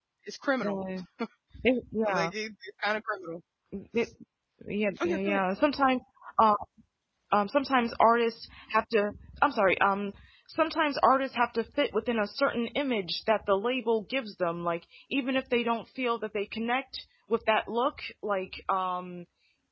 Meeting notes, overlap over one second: none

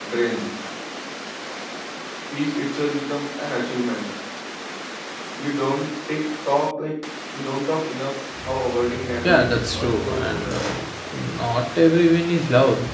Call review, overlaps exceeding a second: present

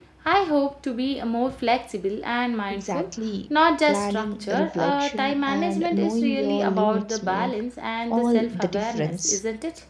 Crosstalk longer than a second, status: present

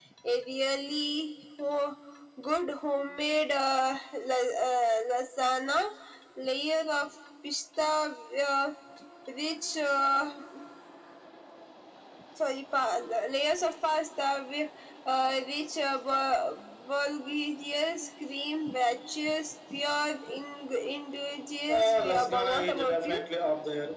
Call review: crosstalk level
present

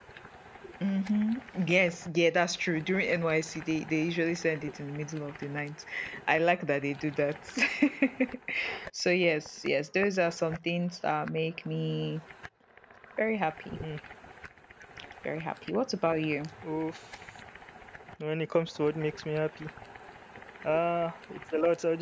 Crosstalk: none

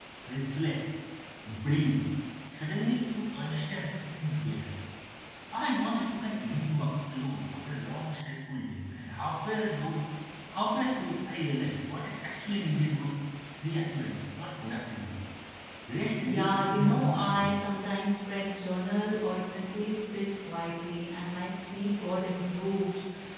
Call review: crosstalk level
present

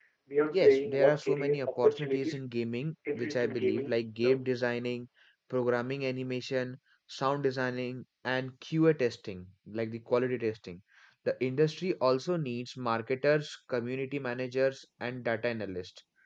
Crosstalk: present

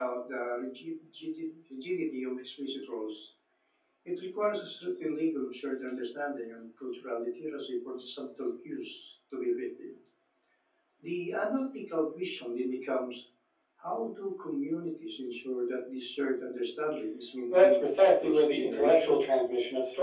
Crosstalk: present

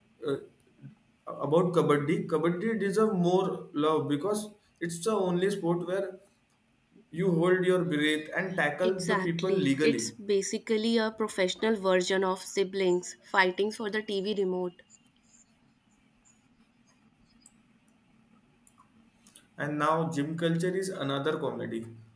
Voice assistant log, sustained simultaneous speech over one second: present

